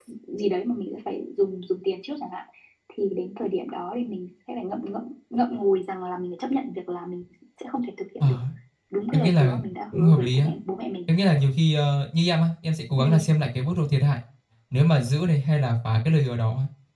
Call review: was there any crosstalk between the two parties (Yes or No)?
Yes